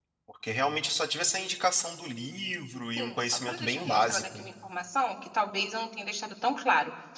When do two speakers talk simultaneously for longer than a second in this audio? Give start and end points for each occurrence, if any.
3.0-4.4

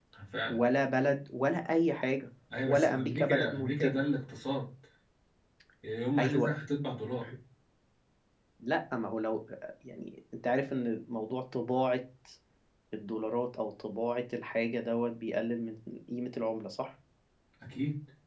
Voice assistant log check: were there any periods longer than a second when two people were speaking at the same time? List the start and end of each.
2.7-4.0

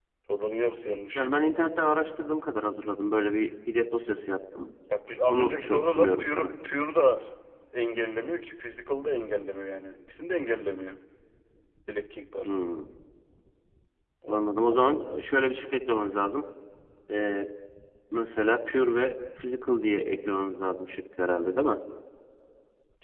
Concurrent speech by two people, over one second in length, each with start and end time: 5.3-6.5

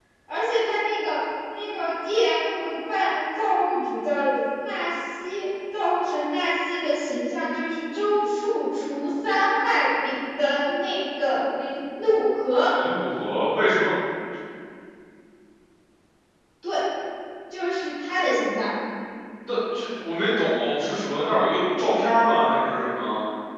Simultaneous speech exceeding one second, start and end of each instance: none

